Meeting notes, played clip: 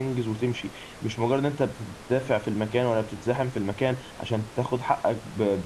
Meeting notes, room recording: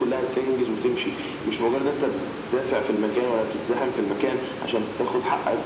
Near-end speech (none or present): none